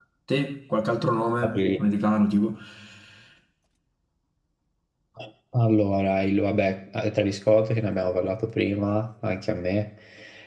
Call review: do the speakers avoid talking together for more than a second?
Yes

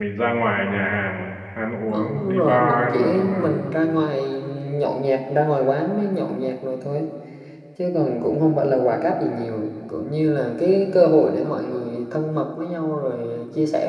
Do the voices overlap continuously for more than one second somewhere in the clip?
Yes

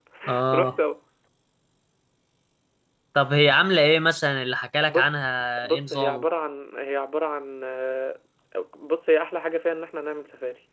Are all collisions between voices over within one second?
No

